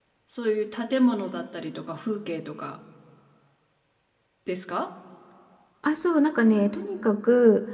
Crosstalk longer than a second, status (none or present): none